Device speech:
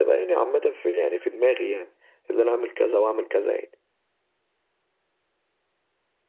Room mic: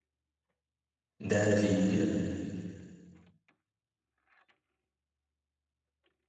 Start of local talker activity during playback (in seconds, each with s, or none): 1.2 s